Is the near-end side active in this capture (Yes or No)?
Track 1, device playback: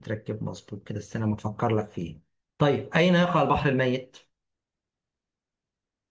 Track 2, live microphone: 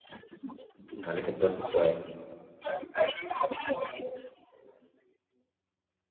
Yes